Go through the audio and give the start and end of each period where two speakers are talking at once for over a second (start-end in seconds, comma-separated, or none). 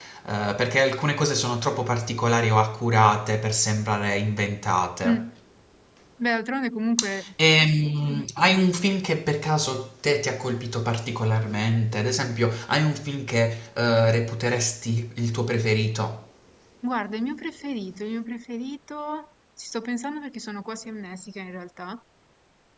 none